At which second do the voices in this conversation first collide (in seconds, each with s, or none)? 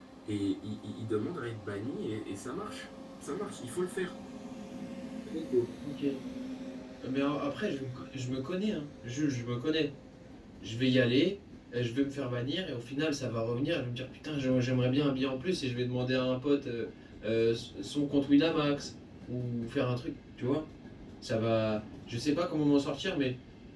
none